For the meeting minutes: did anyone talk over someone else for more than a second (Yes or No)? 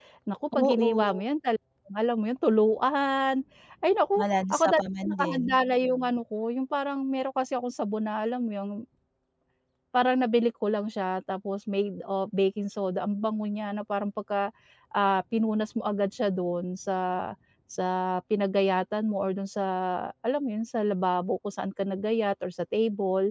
Yes